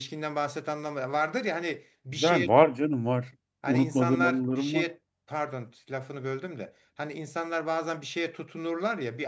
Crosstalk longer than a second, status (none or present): present